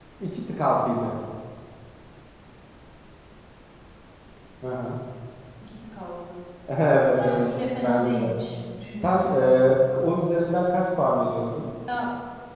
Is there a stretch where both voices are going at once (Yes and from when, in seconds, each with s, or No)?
Yes, from 7.1 s